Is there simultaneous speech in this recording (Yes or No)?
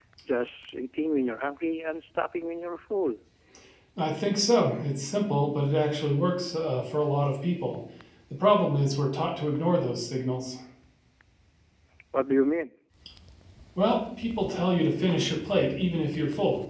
No